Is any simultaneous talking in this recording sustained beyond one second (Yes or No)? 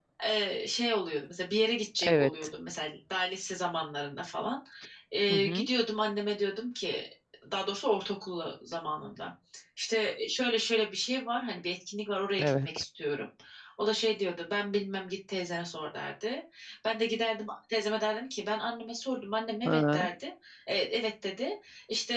No